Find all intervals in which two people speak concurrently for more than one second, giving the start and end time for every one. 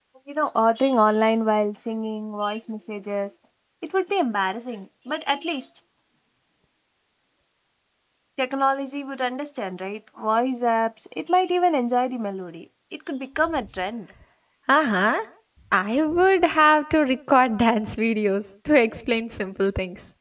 none

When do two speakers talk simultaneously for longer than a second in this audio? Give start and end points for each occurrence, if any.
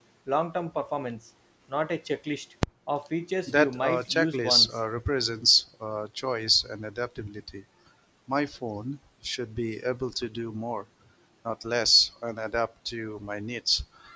3.5-4.7

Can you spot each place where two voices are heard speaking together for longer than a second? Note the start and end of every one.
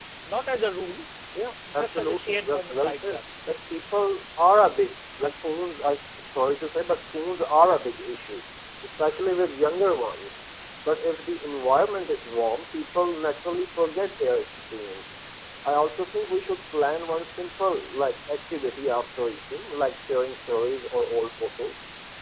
1.7-3.2

